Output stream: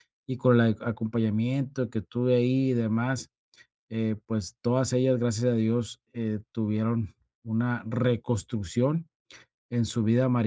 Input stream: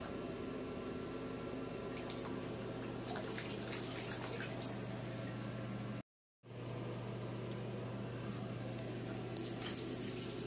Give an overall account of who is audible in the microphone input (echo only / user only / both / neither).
neither